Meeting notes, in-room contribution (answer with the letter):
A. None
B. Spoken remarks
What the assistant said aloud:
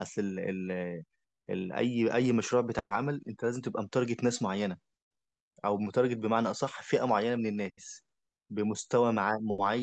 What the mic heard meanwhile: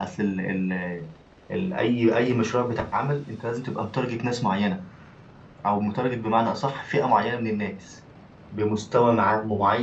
A